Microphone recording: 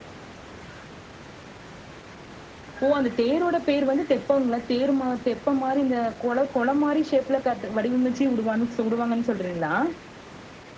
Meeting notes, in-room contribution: none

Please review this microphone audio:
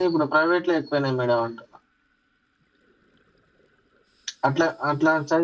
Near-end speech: present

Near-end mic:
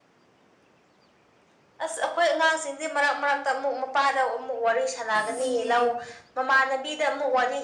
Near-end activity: present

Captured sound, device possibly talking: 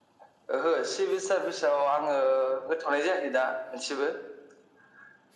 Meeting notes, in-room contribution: none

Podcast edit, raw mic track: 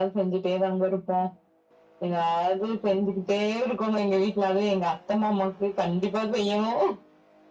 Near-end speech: none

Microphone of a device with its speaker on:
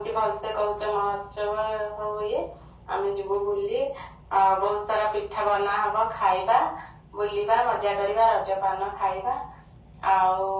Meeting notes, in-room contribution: none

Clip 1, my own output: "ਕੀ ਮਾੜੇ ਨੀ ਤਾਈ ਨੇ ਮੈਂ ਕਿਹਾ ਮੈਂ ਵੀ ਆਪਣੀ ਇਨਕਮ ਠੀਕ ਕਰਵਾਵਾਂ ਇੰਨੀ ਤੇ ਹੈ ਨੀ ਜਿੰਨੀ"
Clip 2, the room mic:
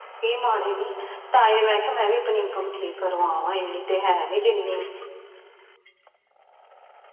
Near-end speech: none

